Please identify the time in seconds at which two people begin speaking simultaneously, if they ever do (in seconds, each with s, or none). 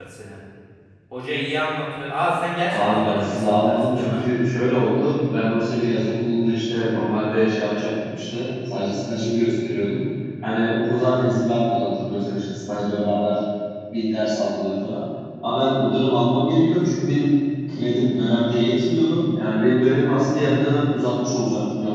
2.7 s